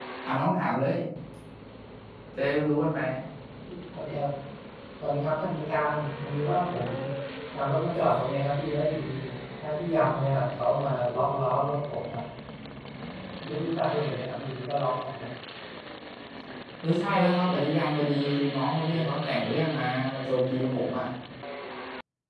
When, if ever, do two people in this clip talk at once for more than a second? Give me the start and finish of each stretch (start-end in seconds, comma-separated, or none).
none